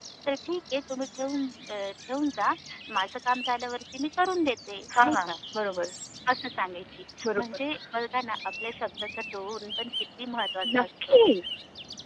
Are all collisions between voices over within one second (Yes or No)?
Yes